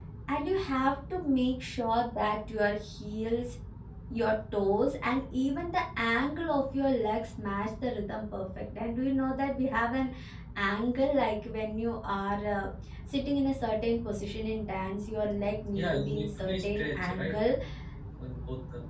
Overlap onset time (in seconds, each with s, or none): 15.7 s